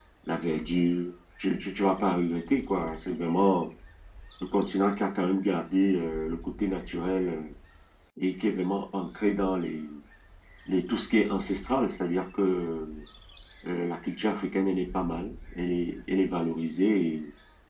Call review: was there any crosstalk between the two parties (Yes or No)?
No